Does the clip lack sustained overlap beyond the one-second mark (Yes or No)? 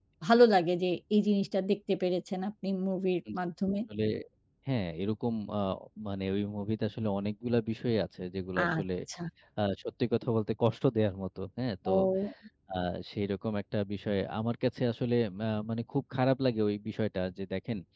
Yes